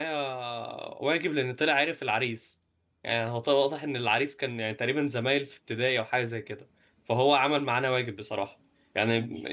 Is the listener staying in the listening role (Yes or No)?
Yes